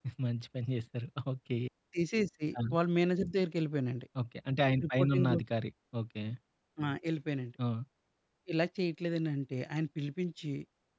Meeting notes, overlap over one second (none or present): none